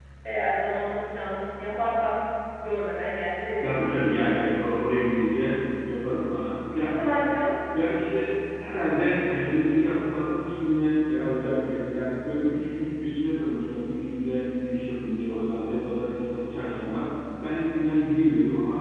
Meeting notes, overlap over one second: none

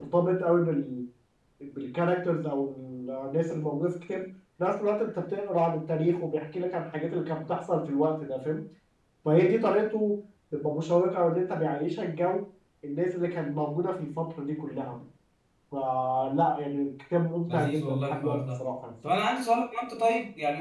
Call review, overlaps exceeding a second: present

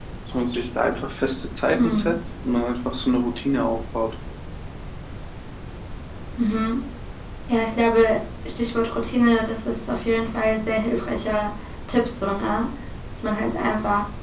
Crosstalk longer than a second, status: none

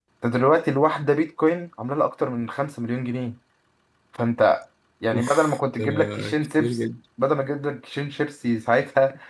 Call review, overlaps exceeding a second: present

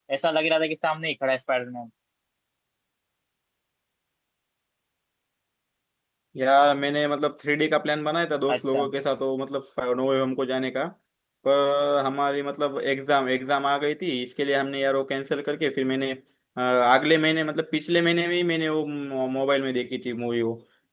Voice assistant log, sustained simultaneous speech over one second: none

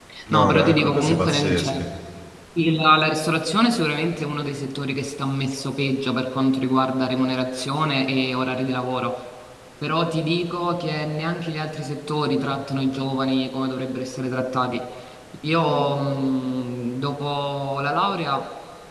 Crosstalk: present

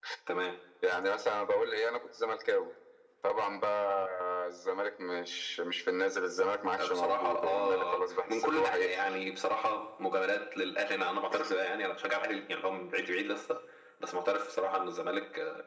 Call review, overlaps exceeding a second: present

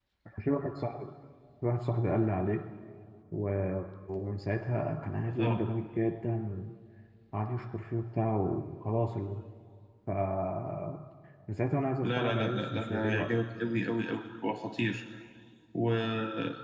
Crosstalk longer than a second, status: present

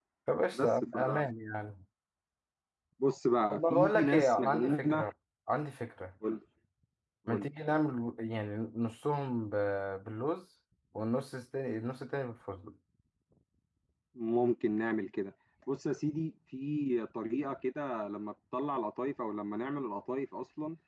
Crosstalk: present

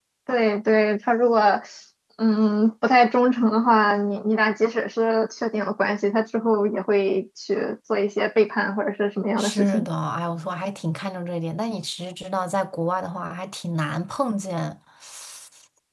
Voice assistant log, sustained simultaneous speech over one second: none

